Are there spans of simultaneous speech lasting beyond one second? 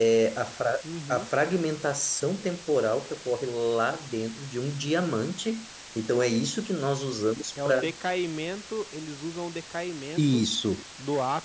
No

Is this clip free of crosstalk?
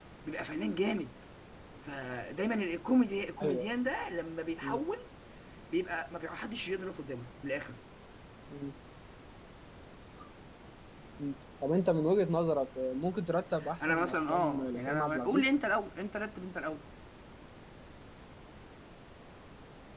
No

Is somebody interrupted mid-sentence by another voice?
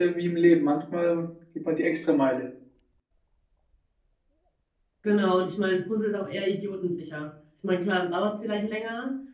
No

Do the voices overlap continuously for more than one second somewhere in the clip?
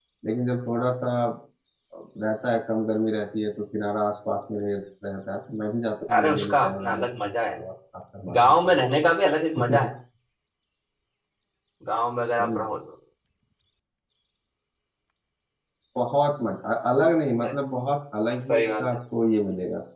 Yes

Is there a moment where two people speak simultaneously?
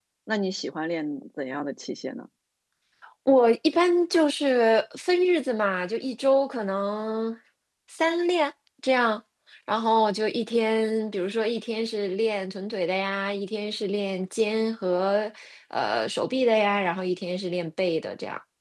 No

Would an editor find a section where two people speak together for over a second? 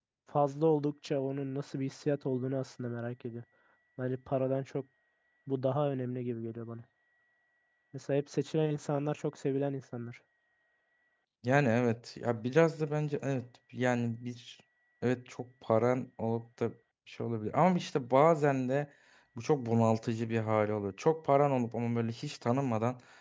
No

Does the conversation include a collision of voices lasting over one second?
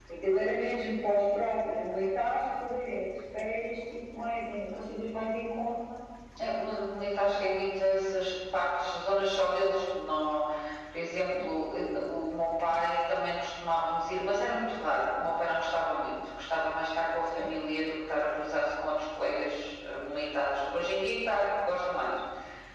No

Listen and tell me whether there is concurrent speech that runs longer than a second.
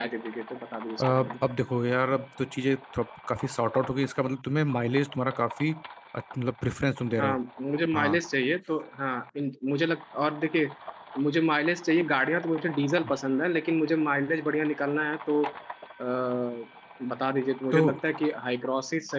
No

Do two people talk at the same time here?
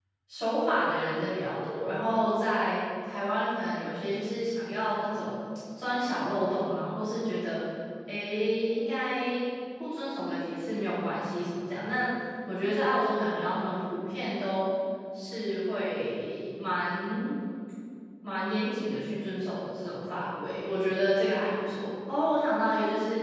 No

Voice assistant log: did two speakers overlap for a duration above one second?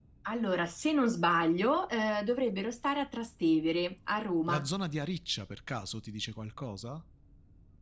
No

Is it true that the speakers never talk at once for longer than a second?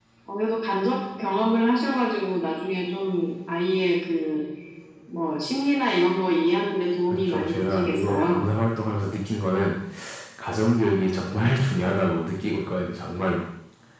No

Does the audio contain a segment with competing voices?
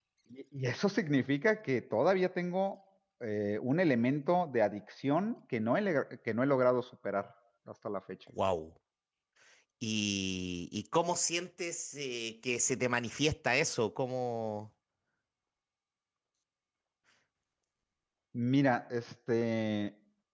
No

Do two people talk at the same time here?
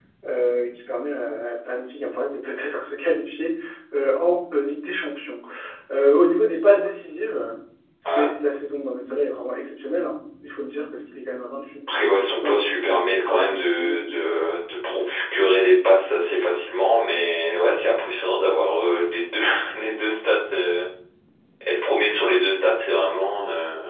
Yes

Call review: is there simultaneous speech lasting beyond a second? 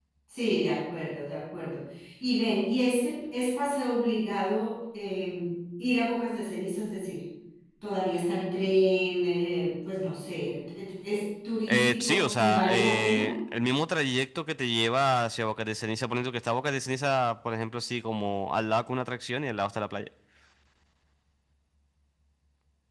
Yes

